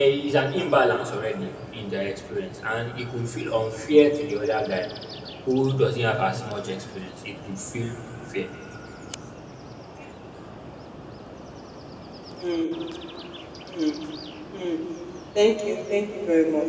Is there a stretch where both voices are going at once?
No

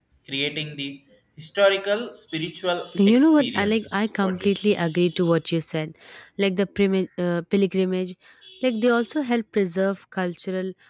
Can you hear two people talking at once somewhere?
Yes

